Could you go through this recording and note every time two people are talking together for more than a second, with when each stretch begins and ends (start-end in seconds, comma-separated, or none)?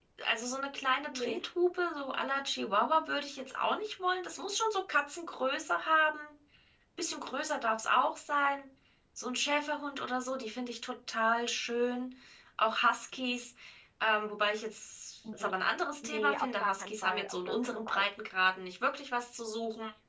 16.0-18.1